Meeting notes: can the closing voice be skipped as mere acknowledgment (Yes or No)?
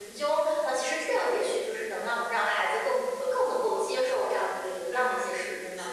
No